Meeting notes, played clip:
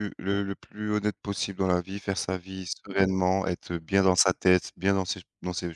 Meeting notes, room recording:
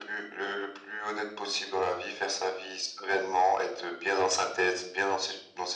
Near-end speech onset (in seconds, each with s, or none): none